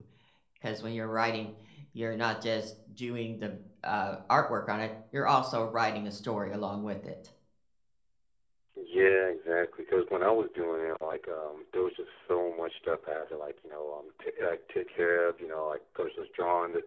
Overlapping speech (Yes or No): No